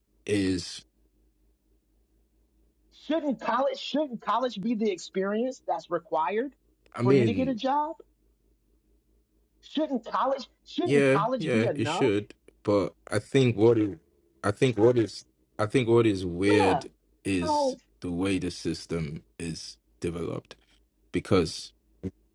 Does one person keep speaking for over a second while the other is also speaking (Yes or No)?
Yes